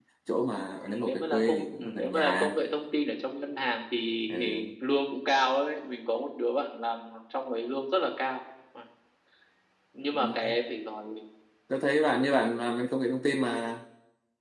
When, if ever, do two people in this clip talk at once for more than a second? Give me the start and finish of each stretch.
0.9-2.6

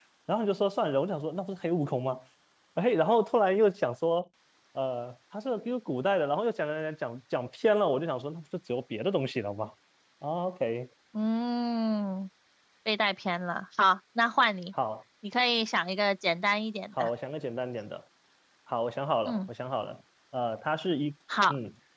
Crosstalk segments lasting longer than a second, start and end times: none

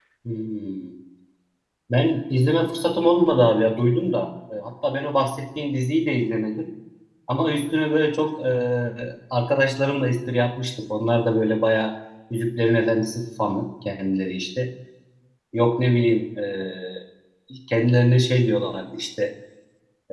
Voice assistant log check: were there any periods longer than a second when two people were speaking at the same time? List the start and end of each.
none

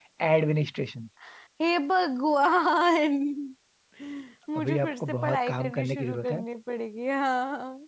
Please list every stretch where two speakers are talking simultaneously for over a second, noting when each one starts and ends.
4.6-6.4

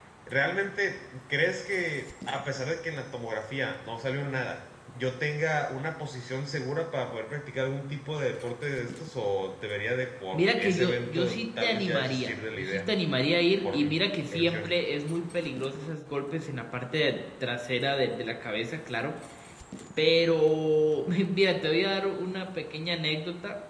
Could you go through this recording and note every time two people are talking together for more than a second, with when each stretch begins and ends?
10.3-12.9

